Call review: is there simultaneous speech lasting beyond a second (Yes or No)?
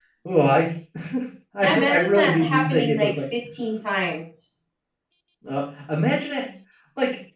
Yes